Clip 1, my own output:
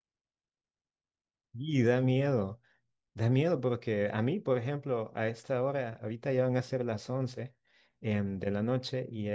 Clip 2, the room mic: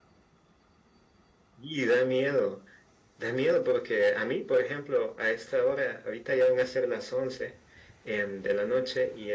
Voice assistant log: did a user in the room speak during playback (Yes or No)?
No